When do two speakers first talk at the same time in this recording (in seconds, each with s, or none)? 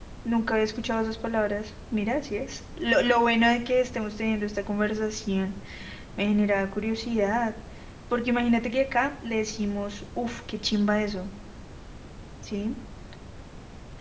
none